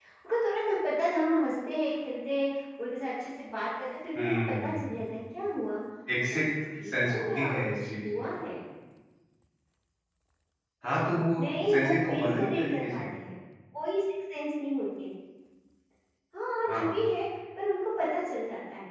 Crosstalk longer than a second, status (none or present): present